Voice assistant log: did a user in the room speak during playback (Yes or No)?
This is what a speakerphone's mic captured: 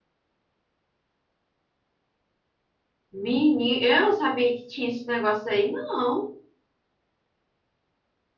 Yes